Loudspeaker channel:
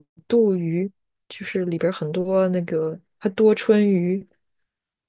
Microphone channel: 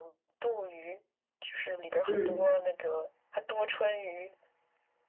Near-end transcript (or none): 嗯